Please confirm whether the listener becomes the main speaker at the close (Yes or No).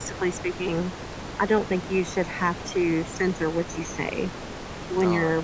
Yes